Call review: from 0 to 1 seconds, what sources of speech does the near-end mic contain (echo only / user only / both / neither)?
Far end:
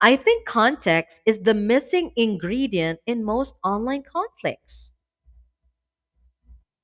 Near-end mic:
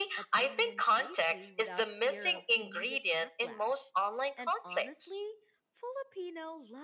both